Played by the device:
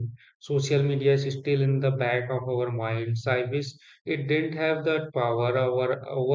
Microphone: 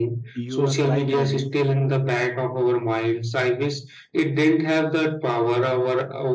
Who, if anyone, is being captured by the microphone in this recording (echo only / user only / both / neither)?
both